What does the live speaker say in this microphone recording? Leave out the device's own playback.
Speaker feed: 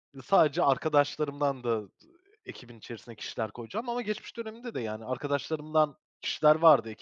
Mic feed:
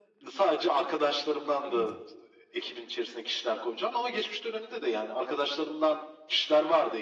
anladım.

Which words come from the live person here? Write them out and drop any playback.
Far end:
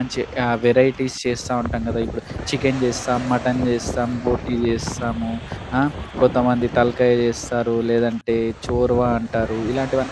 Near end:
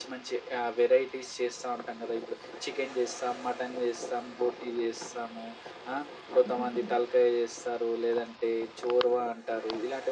యాహ్!

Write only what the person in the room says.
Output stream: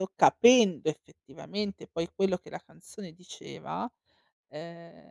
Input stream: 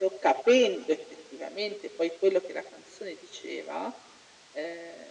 none

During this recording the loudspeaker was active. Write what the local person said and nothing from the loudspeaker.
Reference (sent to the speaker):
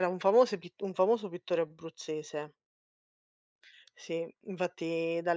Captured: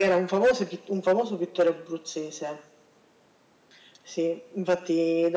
none

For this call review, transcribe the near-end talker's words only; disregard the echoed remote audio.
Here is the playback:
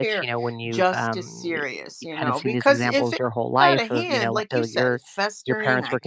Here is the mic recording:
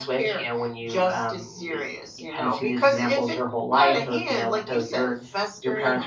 none

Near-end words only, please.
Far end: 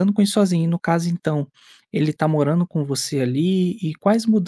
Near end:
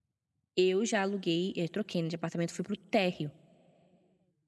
eu já aluguei eh, troquei, né, de apartamento, fui pro térreo.

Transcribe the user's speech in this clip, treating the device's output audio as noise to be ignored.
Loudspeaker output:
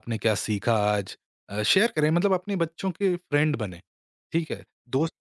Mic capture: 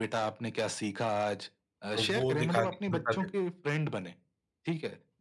तो वो दिखा के कि बेटा देखो

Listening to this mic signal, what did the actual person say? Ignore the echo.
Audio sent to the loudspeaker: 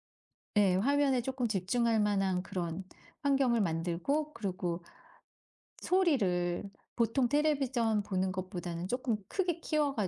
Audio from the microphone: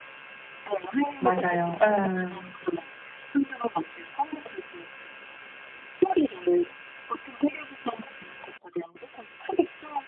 맞아요. 음,

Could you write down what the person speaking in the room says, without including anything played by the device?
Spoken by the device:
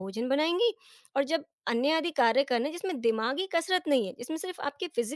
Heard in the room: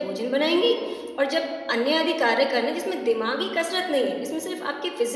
none

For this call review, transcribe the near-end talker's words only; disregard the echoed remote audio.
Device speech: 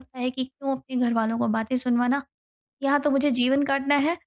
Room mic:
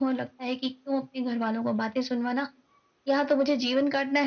none

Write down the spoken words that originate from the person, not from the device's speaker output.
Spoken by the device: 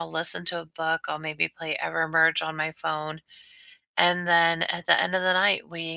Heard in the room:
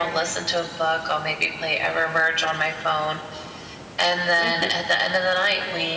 Thank you.

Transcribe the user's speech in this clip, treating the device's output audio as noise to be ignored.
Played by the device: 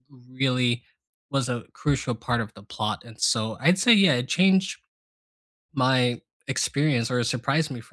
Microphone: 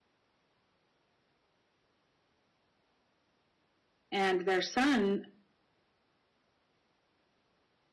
and their son

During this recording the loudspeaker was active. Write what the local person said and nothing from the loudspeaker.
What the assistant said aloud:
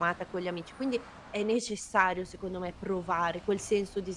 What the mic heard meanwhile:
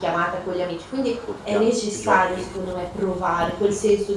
d quotidiana di tutti i giorni,

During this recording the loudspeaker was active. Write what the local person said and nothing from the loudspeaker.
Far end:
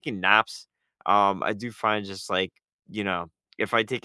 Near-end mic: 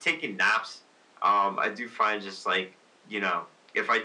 none

